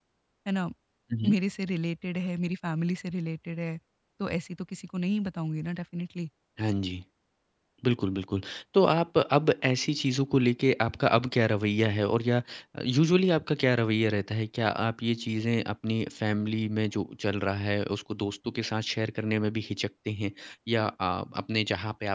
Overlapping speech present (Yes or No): No